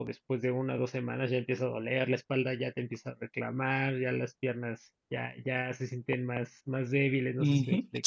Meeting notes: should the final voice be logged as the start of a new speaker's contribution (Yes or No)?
Yes